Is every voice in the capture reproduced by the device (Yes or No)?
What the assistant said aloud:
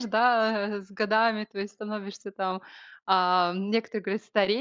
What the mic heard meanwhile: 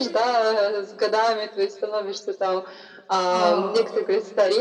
No